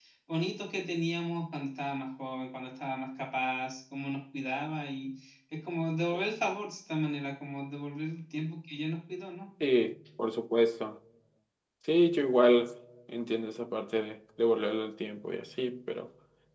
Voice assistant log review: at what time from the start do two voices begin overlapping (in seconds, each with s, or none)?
none